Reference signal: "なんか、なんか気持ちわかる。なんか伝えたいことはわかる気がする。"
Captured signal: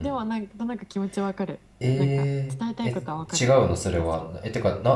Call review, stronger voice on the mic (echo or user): user